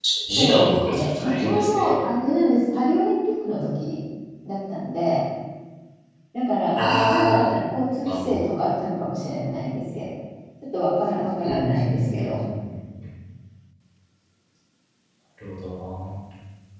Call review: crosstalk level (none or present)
present